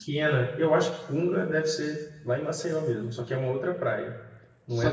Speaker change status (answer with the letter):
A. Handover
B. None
A